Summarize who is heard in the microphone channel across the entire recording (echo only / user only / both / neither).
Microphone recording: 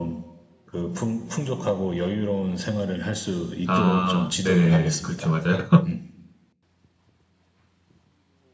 both